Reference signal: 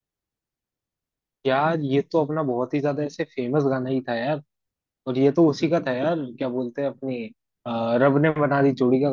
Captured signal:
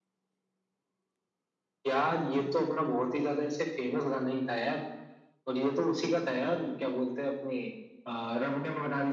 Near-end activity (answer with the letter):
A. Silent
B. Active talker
A